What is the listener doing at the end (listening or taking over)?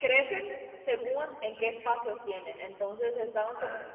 listening